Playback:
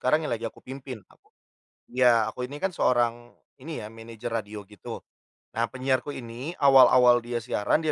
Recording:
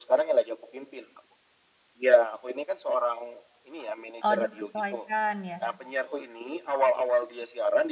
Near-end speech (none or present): present